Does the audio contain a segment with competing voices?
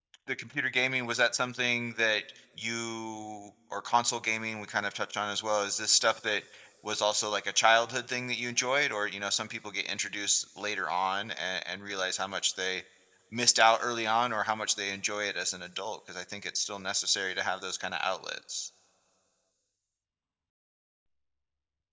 No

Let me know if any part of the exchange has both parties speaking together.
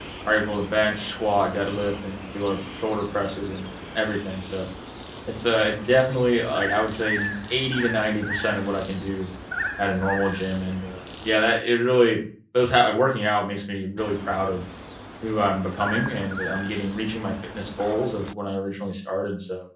No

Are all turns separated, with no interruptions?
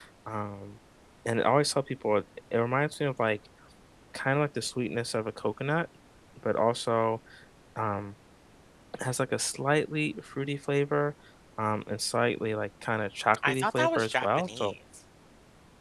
No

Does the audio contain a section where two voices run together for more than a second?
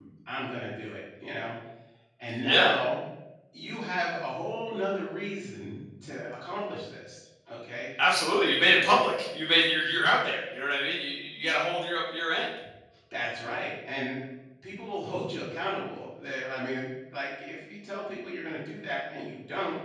No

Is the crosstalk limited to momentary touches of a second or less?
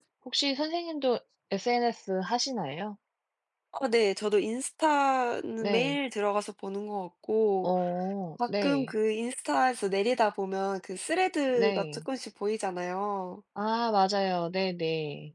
Yes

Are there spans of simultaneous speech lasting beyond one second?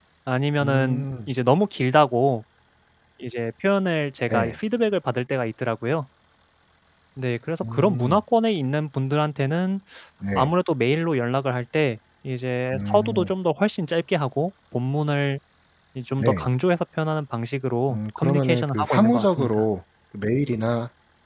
Yes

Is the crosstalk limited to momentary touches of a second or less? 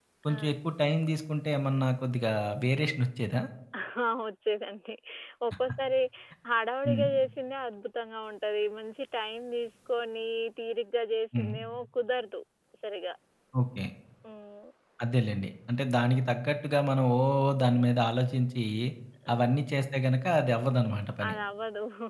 Yes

